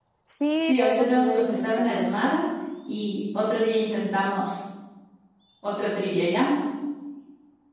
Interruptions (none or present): present